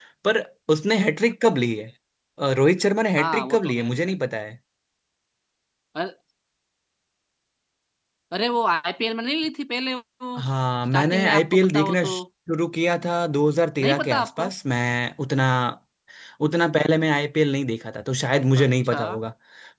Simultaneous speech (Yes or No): Yes